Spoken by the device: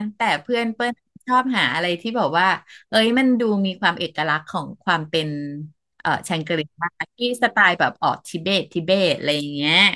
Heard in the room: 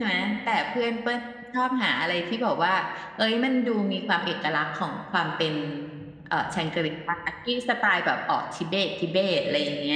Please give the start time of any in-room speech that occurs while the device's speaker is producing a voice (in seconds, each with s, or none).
none